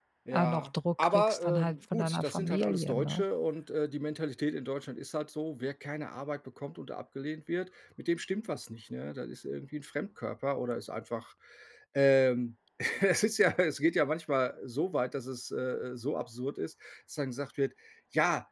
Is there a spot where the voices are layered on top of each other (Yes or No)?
Yes